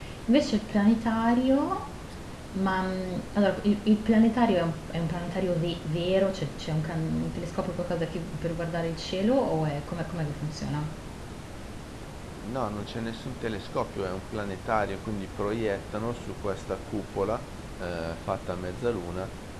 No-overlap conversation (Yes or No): Yes